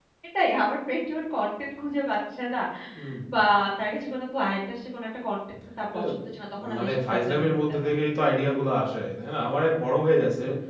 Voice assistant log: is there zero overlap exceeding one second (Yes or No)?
No